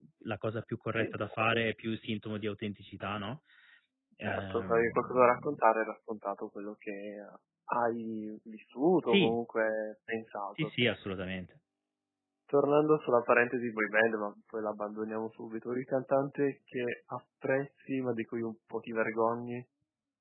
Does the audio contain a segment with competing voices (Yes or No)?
Yes